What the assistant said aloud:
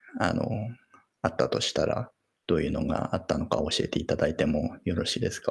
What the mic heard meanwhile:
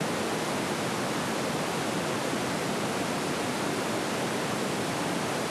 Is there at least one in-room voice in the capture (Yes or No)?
No